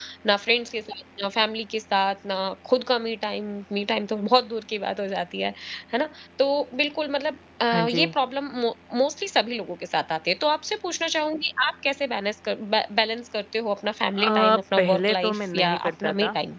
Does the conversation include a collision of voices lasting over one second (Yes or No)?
Yes